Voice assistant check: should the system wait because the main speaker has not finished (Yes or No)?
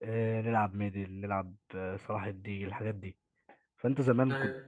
Yes